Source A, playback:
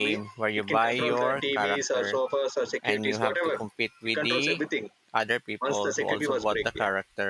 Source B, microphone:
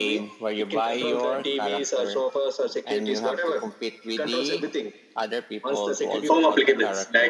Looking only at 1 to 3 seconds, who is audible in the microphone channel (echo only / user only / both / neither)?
echo only